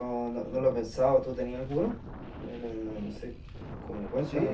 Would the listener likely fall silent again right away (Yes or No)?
No